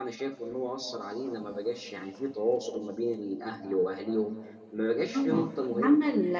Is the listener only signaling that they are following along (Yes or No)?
No